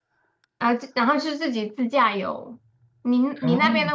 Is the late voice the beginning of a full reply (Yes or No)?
No